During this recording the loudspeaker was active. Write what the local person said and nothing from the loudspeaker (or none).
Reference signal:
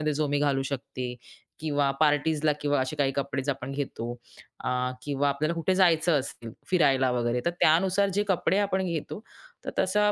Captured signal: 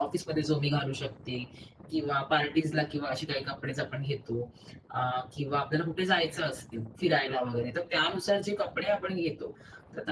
none